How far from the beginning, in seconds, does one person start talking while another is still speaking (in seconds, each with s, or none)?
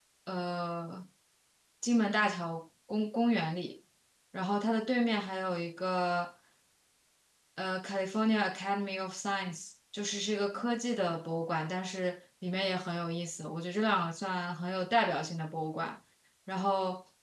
none